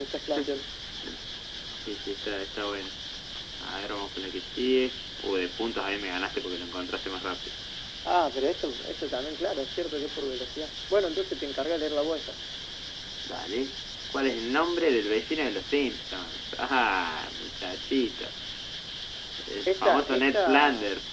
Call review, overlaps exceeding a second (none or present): present